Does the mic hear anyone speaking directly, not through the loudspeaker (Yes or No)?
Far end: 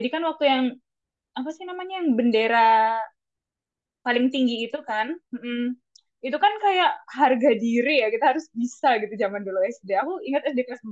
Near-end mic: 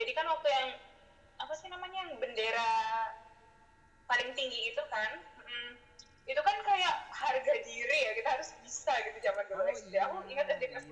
Yes